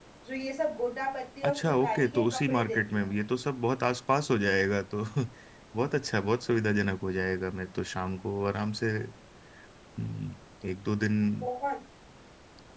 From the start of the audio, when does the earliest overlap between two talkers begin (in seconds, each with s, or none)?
1.4 s